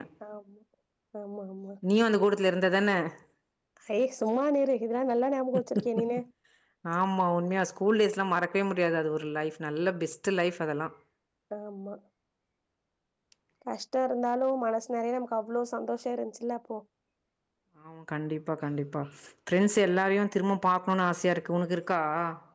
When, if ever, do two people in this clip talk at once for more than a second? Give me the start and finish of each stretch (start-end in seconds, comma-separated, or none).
none